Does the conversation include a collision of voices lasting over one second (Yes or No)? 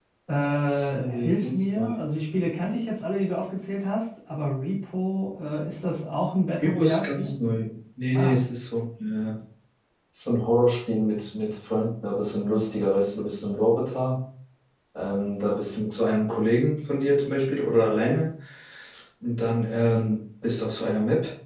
Yes